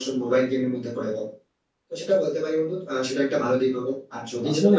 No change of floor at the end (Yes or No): No